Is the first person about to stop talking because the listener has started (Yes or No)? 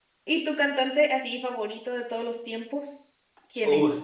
Yes